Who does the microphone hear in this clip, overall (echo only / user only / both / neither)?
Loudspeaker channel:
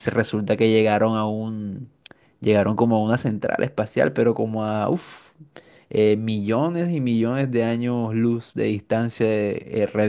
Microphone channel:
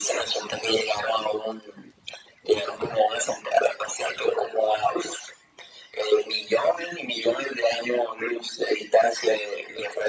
echo only